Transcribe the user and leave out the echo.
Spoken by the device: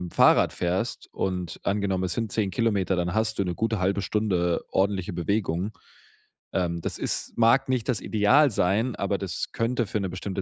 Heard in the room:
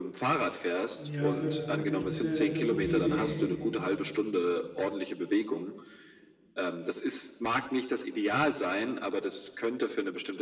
Ja, also, das 'ne echt 'ne 'ne gute Idee.

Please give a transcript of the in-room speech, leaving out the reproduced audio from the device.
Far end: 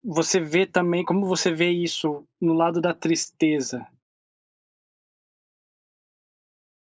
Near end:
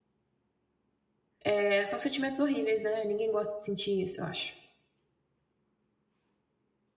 eh, são sentimentos horríveis, né, ninguém gosta de sentir isso, eu acho.

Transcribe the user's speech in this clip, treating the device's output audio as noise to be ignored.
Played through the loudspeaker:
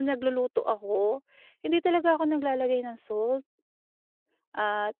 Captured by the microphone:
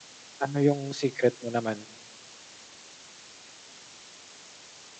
Ano 'yong secret mo naman?

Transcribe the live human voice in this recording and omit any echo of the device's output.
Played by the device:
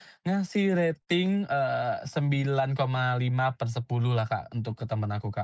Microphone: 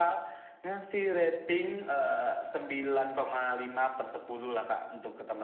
none

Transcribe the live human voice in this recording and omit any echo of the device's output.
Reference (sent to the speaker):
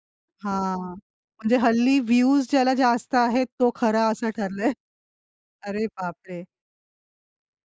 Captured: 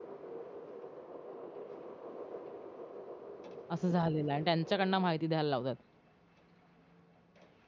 असं झालेलं आहे आणि त्यांच्याकडनं माहिती द्यायला लावतात

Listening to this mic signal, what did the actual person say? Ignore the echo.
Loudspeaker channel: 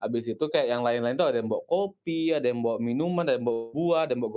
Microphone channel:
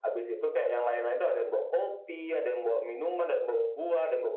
none

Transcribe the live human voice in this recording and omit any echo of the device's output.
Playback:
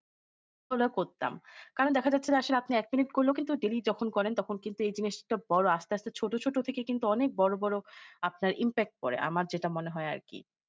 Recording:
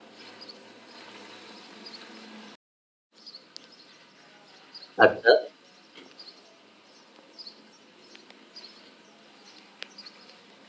আচ্ছা।

